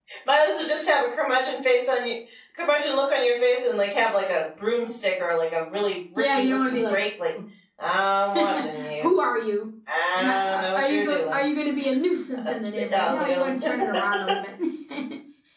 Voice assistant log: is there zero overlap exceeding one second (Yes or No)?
No